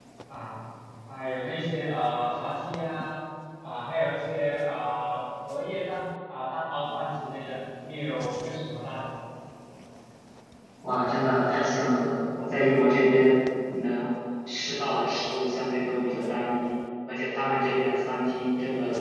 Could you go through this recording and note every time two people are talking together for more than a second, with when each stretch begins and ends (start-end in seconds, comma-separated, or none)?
none